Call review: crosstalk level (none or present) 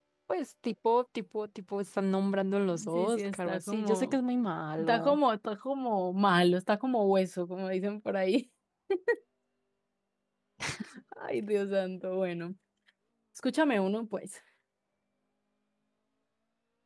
present